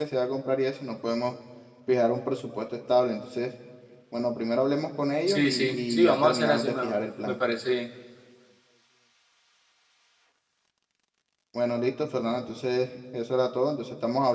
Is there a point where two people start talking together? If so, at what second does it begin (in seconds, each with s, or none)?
5.3 s